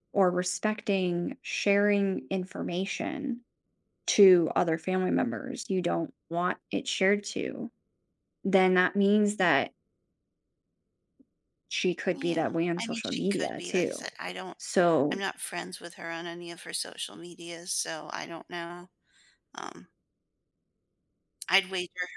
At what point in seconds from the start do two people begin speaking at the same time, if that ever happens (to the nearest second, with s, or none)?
12 s